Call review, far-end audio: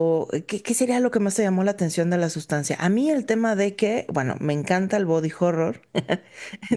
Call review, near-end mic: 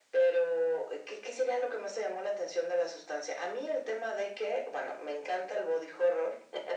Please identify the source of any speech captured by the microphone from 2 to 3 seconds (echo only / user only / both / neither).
echo only